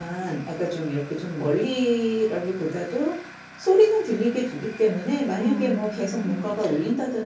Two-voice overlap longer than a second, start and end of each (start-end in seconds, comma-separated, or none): 5.4-6.7